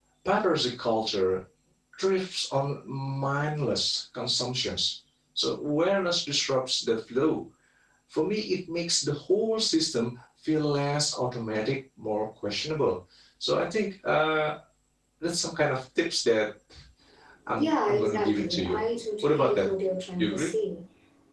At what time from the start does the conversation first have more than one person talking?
17.6 s

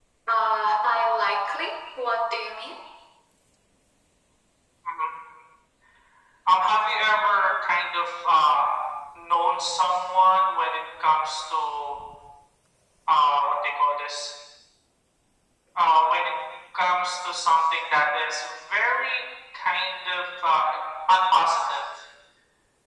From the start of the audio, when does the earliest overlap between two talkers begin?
none

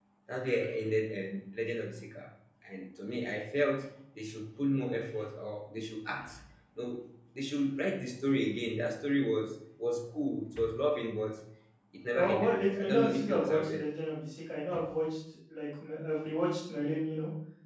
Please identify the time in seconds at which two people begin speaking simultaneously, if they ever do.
12.2 s

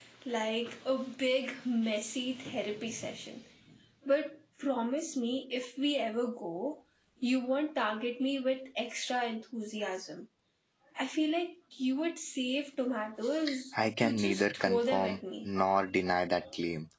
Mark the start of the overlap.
14.0 s

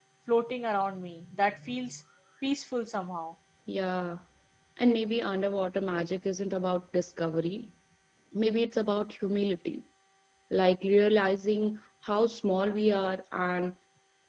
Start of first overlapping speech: none

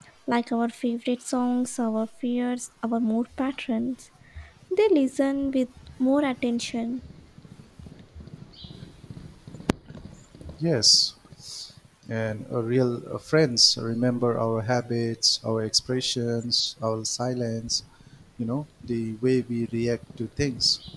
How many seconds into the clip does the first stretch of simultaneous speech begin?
none

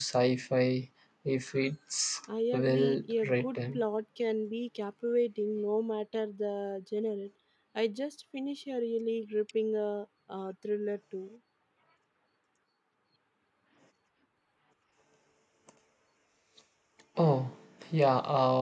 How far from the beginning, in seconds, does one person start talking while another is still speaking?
2.3 s

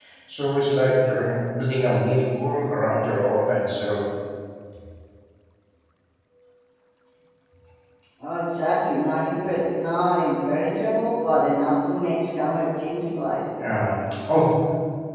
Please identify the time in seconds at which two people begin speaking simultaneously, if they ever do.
none

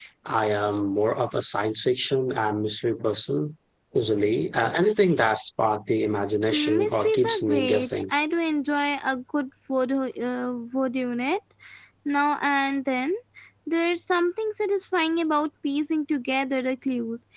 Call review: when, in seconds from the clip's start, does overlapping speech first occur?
6.5 s

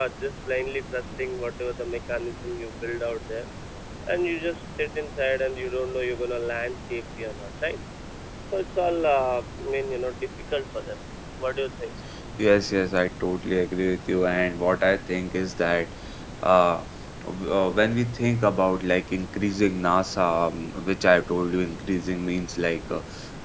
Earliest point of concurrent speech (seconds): none

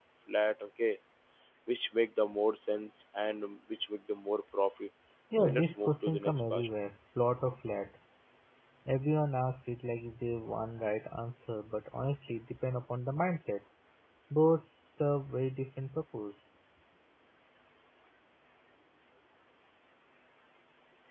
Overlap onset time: 5.4 s

